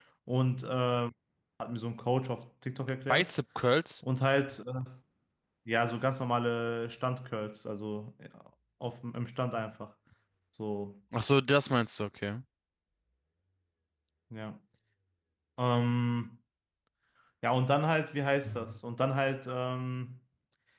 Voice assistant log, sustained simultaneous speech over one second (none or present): none